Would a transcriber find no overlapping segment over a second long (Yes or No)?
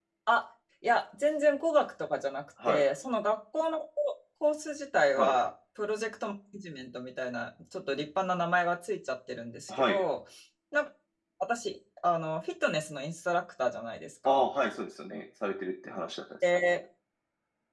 Yes